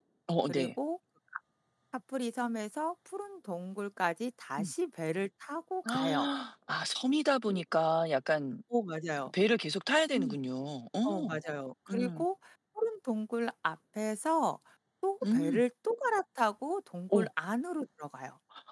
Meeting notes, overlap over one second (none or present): none